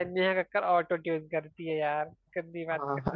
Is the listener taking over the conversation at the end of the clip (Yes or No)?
Yes